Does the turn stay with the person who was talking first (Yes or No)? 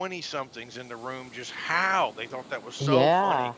Yes